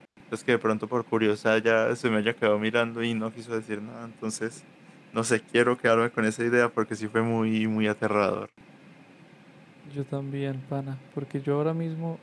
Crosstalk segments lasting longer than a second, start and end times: none

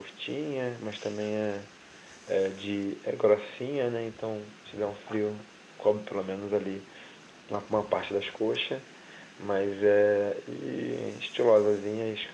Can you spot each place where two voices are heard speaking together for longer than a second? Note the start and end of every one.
none

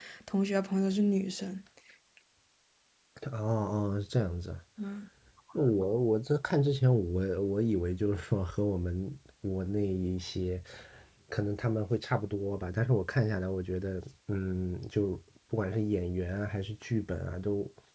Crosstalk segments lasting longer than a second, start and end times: none

